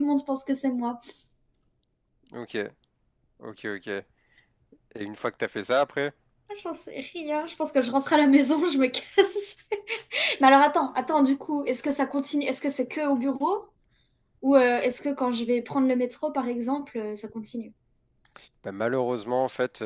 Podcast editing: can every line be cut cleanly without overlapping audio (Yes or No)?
Yes